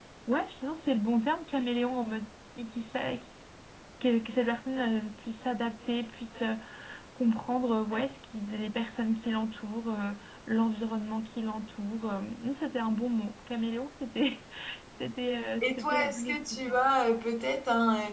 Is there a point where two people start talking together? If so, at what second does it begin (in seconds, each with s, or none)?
15.6 s